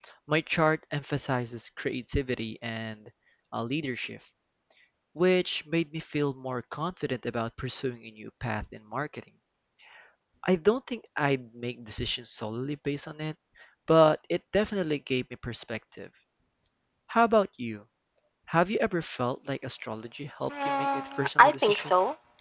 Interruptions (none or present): present